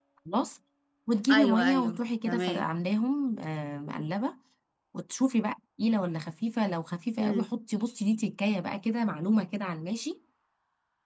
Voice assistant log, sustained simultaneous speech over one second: present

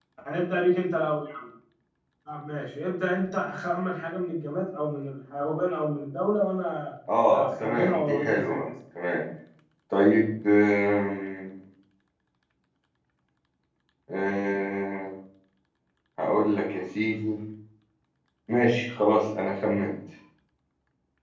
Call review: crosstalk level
present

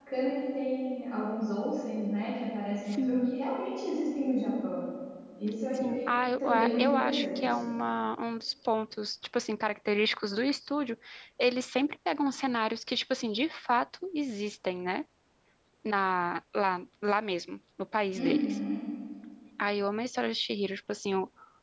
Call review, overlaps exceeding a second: present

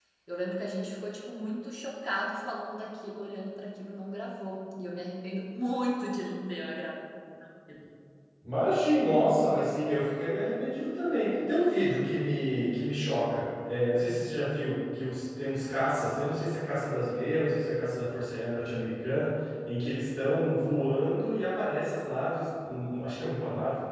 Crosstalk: none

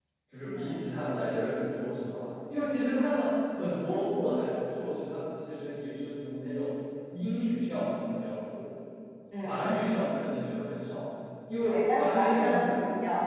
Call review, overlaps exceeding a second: present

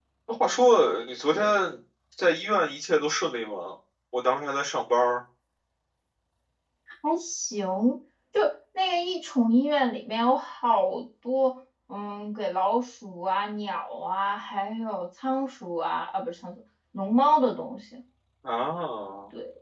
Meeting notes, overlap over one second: none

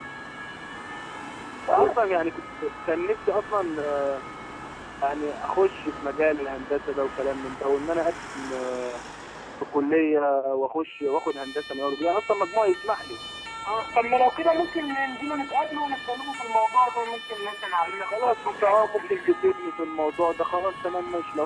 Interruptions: present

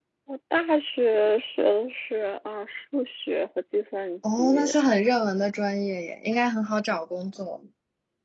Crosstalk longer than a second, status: none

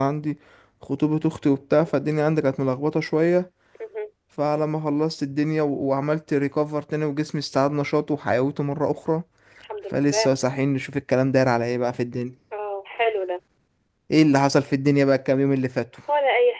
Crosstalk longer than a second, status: none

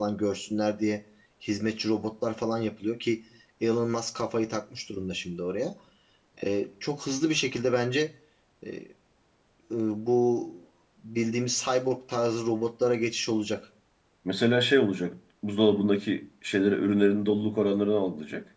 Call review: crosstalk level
none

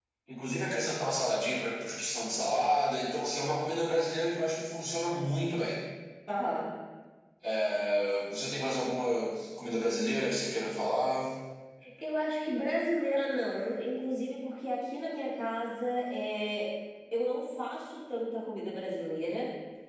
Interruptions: none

